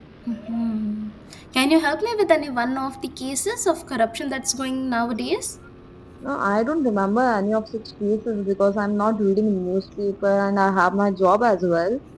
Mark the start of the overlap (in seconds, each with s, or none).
none